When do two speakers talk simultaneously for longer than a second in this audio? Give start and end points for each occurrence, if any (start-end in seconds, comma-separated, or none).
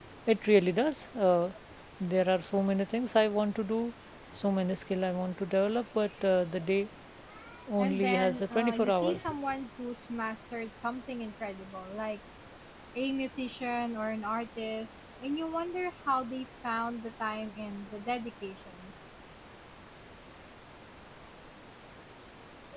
7.8-9.3